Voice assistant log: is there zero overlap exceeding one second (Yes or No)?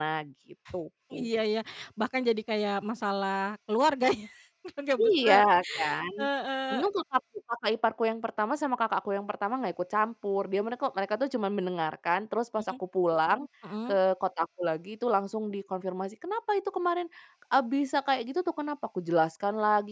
Yes